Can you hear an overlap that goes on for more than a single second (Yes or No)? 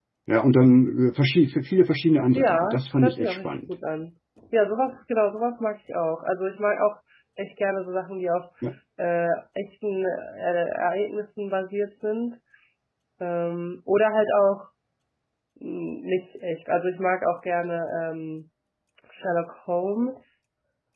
Yes